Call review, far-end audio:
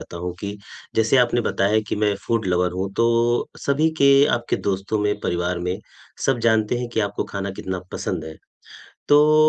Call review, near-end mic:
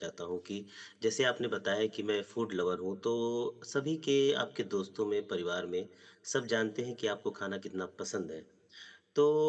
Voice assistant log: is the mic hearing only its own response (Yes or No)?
Yes